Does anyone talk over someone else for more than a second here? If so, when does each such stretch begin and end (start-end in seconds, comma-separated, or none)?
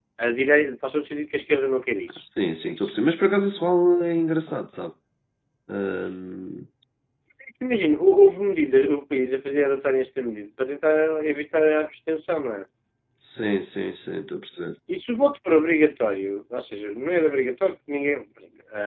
none